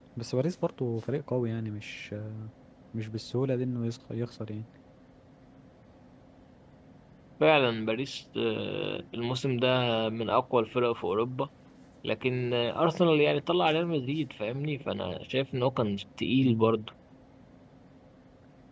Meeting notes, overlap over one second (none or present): none